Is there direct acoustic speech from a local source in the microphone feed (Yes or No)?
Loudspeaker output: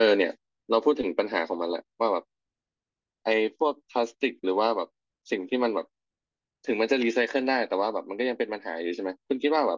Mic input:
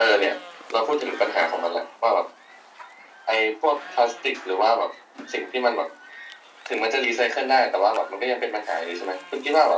No